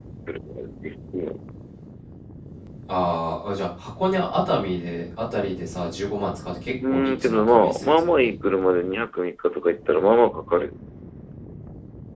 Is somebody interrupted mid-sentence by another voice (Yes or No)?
Yes